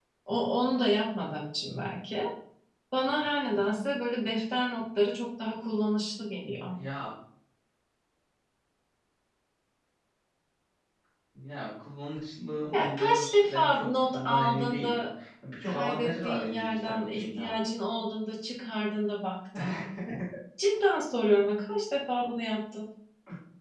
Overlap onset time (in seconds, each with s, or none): 12.7 s